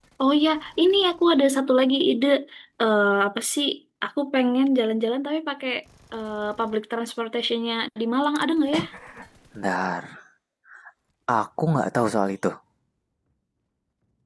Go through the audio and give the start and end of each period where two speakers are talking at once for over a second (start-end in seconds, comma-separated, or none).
none